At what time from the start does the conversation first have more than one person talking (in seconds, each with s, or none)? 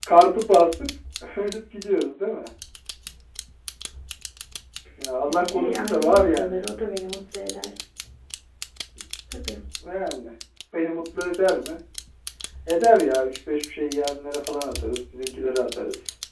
5.3 s